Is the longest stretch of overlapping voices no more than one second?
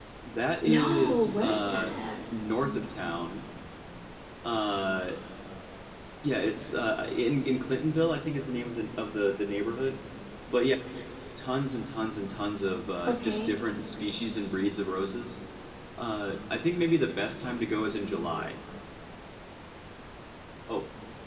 No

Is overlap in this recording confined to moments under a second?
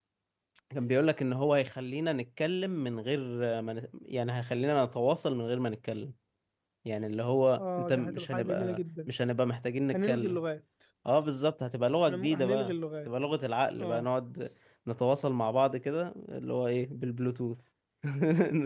No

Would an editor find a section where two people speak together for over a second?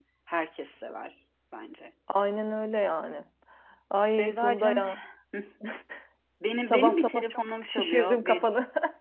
Yes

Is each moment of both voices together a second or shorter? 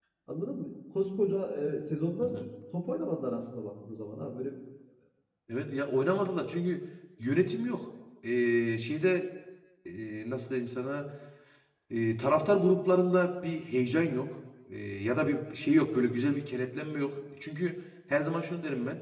Yes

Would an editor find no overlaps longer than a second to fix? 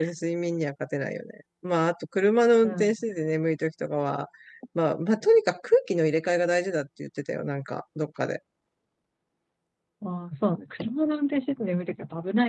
Yes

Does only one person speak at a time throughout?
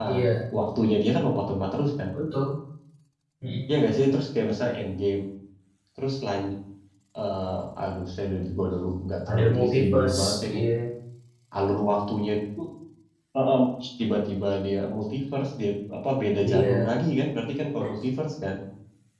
No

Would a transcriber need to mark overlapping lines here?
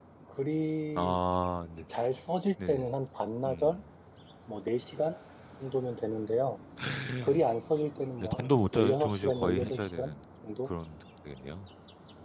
Yes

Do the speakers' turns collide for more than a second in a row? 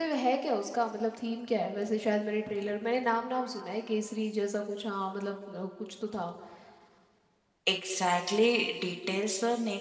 No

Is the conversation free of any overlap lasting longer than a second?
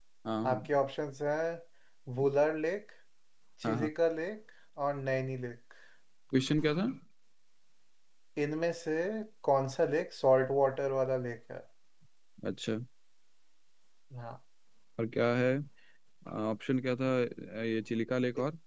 Yes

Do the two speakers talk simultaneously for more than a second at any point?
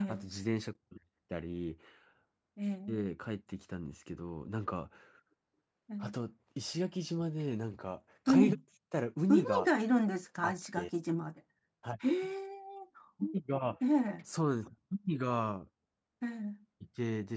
No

